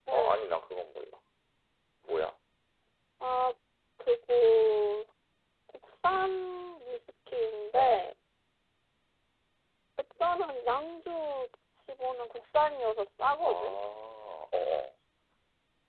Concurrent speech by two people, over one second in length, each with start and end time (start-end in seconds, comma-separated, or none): none